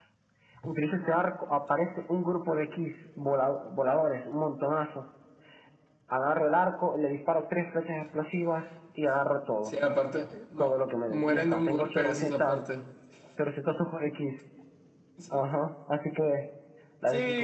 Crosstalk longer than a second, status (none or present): present